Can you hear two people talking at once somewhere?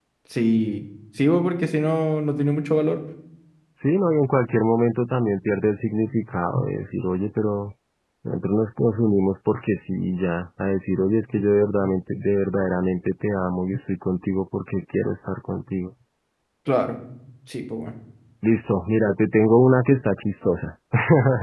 No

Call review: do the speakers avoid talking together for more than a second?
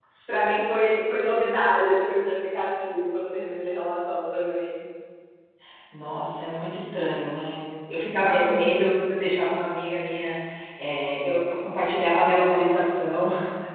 Yes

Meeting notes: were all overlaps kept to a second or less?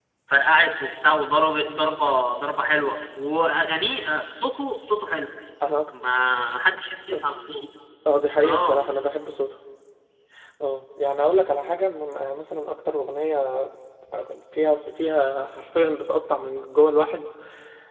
Yes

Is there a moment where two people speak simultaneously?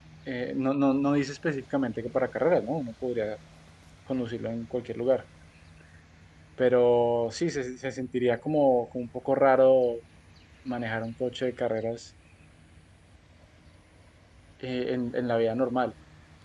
No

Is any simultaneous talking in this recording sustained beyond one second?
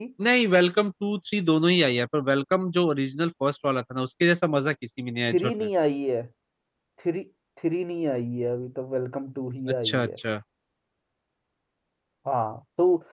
No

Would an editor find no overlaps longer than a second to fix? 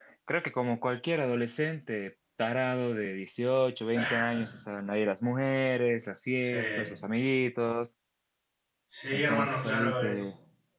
No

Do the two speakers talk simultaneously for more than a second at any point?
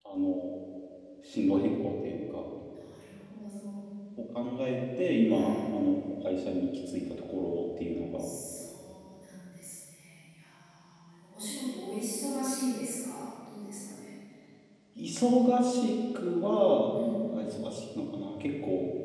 No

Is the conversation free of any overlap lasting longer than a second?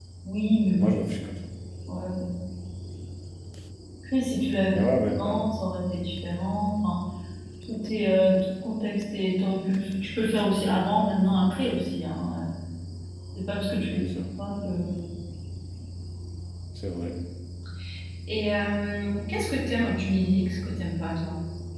Yes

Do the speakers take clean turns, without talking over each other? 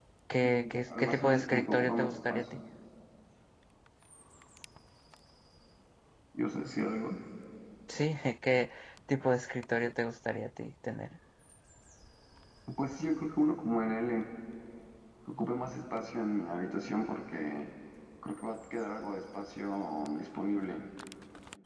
No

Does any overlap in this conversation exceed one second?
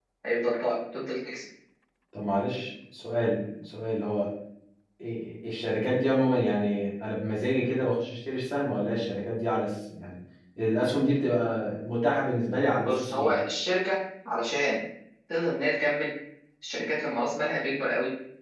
No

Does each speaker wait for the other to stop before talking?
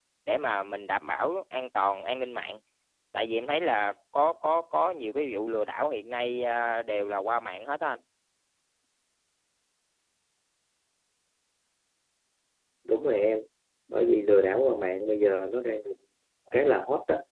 Yes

